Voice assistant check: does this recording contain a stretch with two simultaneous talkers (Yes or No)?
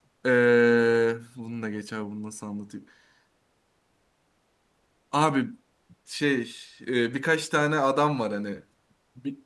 No